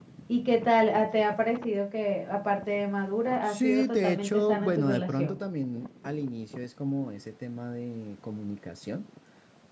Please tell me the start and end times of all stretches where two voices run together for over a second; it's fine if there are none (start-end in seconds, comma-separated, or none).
3.5-5.4